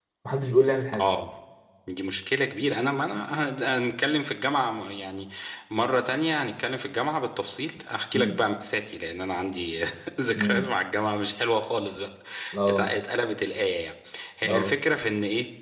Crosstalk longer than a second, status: none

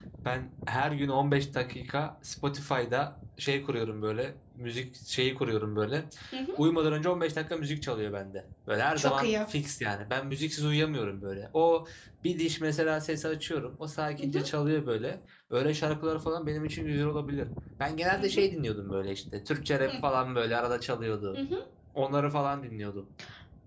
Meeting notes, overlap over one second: none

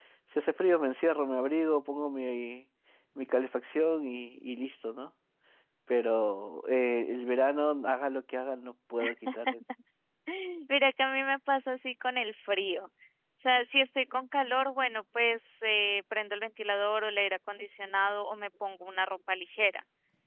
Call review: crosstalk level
none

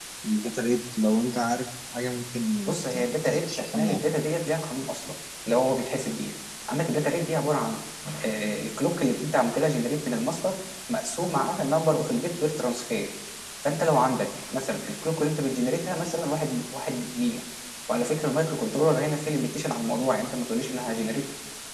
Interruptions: present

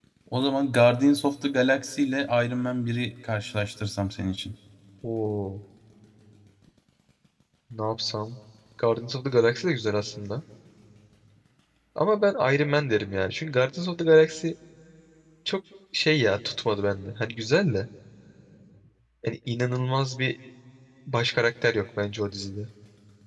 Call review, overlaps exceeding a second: none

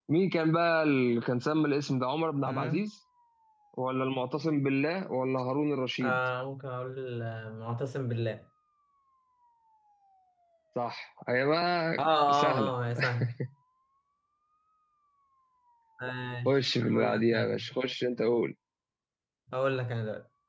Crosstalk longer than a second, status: present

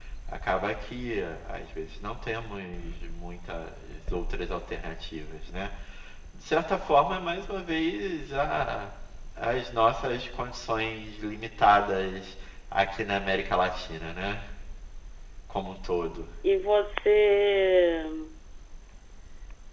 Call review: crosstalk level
none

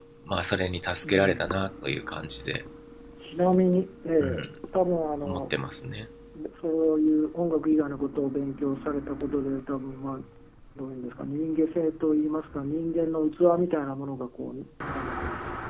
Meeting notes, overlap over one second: none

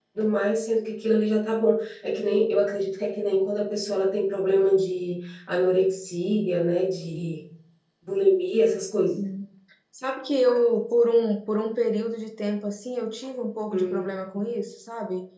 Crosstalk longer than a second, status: none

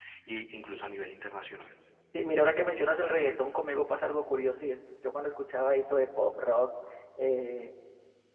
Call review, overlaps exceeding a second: none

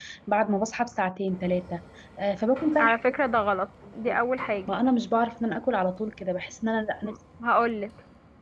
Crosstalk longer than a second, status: none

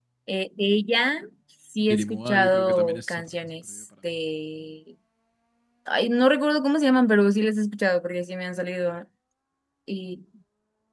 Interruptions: present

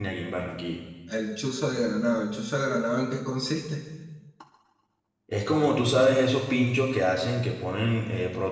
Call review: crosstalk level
none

